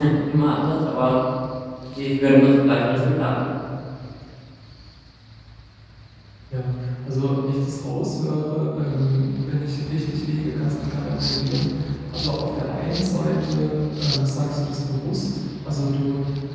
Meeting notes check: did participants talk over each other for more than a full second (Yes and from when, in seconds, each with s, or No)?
No